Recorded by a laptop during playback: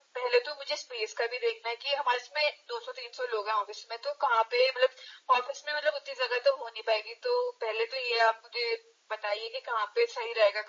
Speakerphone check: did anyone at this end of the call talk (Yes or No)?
No